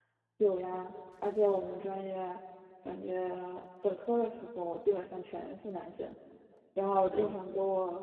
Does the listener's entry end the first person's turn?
No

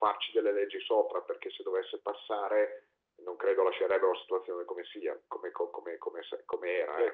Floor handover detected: Yes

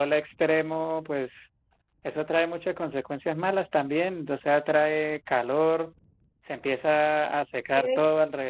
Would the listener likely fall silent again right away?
Yes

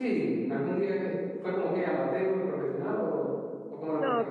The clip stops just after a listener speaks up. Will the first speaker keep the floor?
No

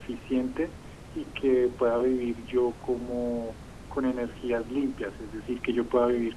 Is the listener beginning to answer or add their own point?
No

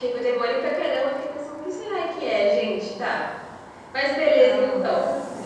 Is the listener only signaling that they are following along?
No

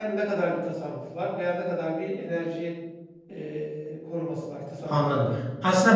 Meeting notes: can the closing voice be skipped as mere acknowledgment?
No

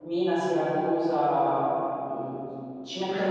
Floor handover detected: No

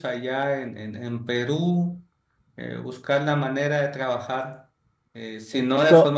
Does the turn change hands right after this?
No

